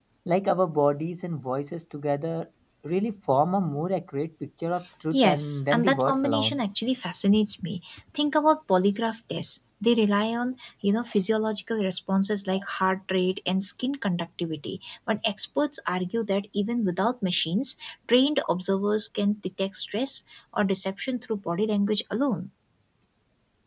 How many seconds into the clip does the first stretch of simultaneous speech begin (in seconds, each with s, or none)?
5.1 s